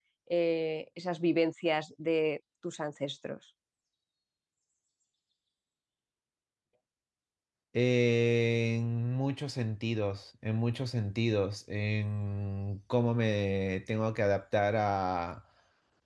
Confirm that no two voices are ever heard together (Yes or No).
Yes